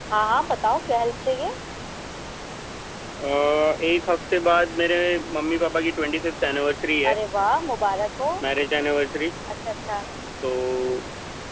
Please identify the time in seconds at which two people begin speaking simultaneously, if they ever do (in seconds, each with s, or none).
none